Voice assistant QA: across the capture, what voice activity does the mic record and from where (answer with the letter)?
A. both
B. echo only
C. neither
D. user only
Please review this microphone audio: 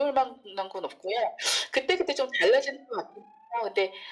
B